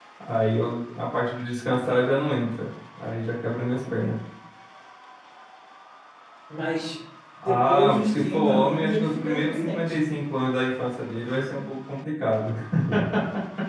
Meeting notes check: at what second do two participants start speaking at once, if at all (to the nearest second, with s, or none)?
7 s